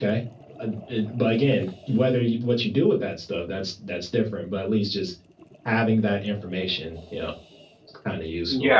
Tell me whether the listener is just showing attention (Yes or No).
No